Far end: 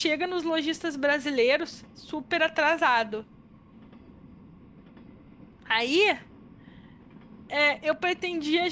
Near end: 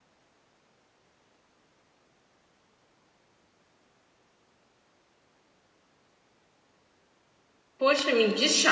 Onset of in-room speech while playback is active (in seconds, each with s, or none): 7.8 s